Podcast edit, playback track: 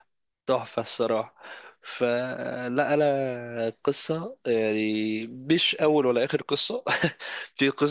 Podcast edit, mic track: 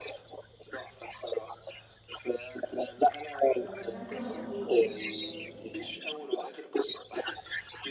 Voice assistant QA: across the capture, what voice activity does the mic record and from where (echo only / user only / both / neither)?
both